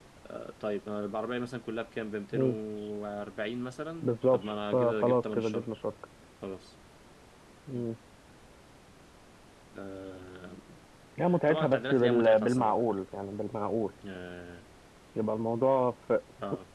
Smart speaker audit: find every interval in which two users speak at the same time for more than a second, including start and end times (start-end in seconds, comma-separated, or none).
4.0-5.7, 11.5-12.8